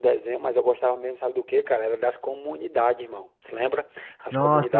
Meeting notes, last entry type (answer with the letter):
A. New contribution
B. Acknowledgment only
A